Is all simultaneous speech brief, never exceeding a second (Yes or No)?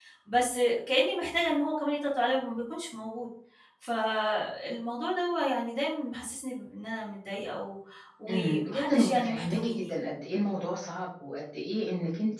No